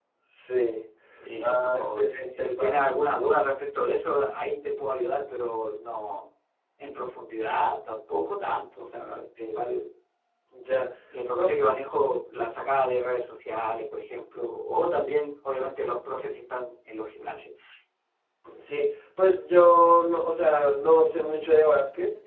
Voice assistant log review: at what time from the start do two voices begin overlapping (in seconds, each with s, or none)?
1.4 s